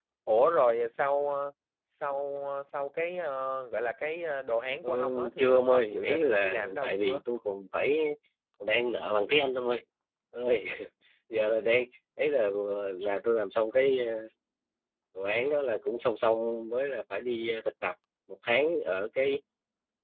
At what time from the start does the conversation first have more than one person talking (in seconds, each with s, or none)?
4.8 s